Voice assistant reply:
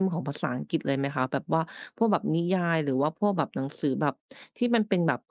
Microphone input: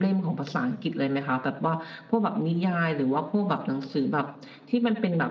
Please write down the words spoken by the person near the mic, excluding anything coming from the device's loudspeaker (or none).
none